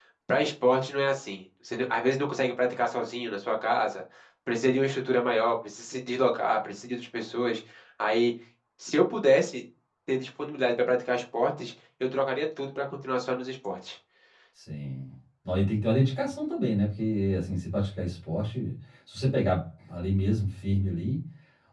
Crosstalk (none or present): none